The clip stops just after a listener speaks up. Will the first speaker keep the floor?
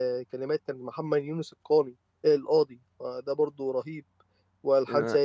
Yes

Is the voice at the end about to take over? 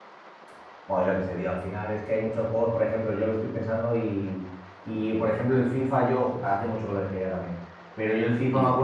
No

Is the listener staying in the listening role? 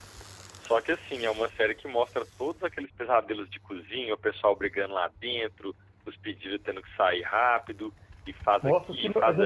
No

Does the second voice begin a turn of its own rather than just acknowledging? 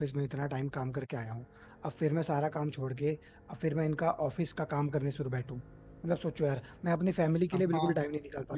Yes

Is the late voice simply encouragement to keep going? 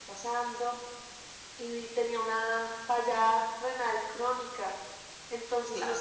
Yes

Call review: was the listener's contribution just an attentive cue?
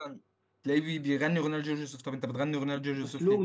No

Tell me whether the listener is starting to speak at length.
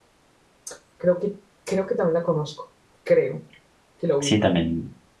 Yes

